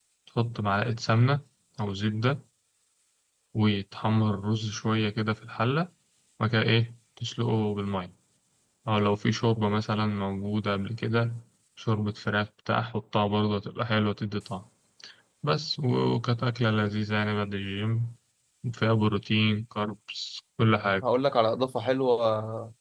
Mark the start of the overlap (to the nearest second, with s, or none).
none